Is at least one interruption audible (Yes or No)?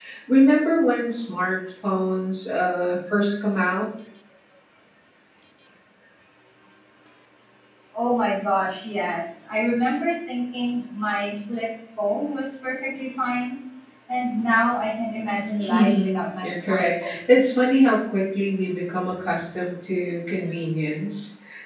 Yes